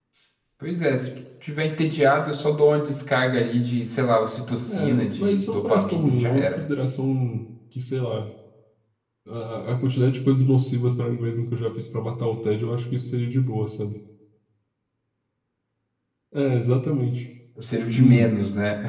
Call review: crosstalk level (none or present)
present